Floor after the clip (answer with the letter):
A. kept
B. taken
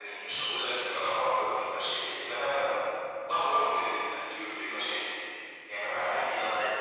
A